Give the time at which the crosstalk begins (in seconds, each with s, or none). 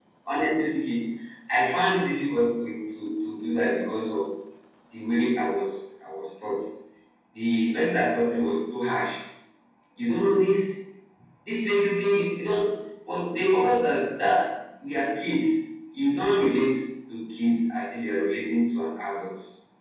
none